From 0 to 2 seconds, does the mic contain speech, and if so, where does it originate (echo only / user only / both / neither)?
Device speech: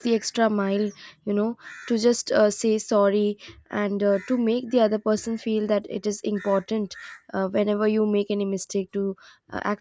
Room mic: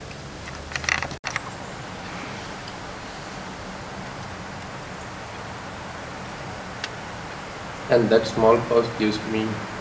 neither